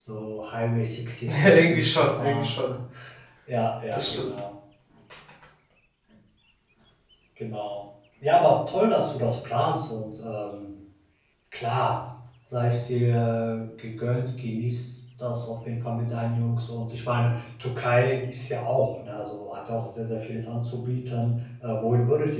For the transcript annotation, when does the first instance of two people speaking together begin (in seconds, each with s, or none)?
1.3 s